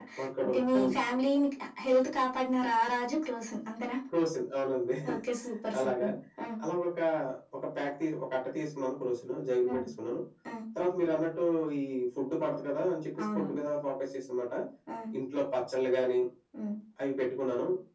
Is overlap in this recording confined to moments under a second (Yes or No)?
Yes